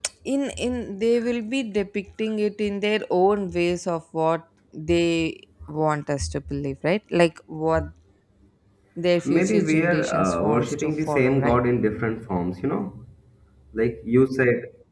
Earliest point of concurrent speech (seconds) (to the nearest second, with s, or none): 9 s